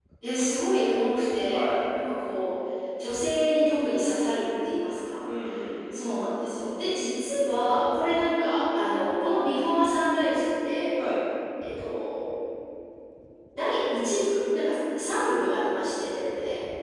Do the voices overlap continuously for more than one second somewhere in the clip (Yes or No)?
No